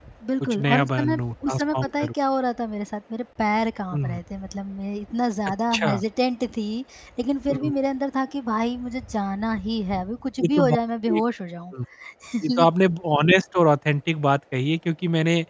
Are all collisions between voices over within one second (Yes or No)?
No